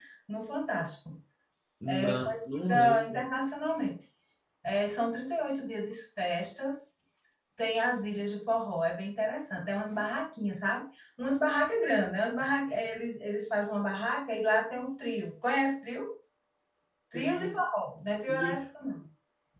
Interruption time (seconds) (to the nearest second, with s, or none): 2 s